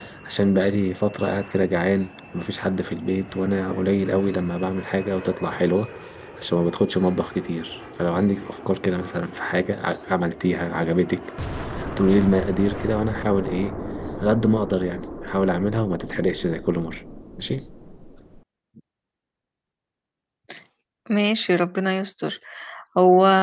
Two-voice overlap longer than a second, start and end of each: none

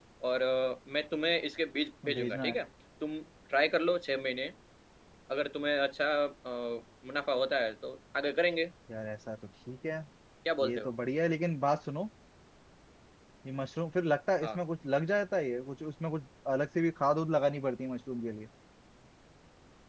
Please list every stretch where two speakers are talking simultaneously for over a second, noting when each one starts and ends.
none

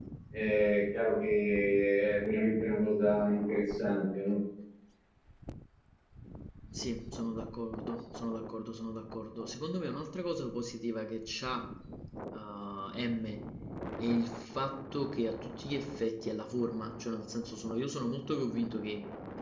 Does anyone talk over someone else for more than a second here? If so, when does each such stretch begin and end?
none

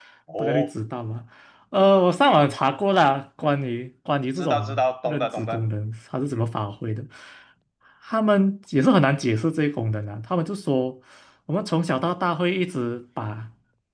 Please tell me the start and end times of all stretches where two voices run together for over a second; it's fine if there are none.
4.3-5.6

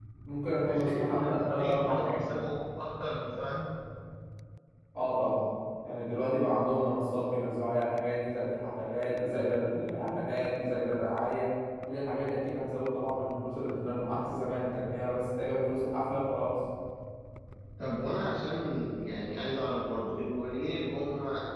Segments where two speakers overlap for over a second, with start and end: 0.7-2.2

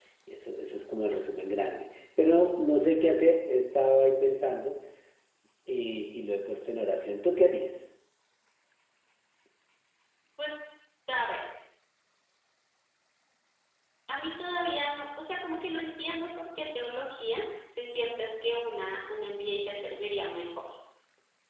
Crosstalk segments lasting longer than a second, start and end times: none

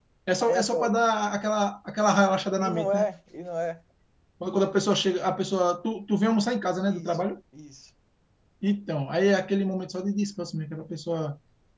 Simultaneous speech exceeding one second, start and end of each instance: none

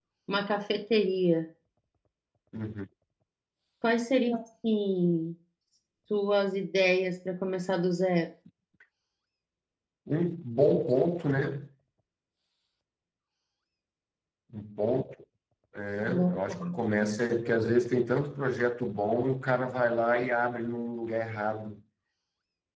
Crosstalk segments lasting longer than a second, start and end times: none

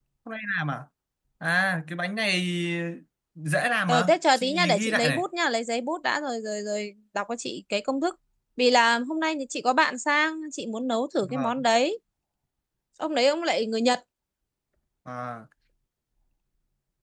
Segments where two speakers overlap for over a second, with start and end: 3.9-5.2

